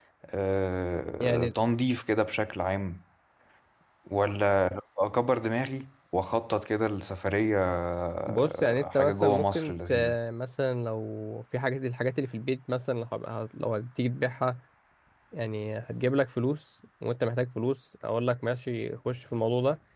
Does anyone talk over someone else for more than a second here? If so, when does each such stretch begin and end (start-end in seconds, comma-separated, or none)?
8.3-9.9